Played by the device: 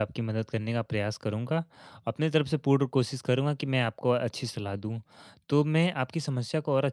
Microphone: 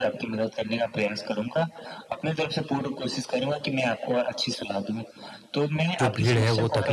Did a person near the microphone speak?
Yes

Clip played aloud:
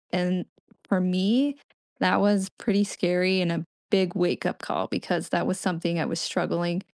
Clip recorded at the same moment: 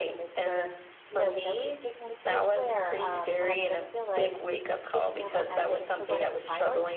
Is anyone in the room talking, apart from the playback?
Yes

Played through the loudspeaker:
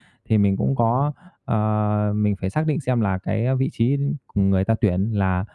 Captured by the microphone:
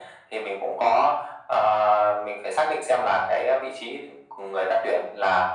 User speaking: No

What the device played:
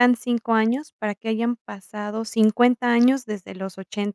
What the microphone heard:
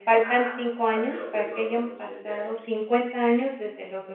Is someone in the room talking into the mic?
Yes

